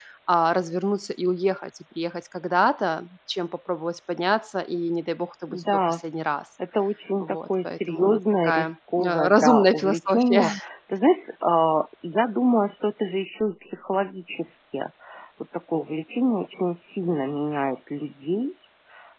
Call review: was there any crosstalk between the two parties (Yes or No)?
Yes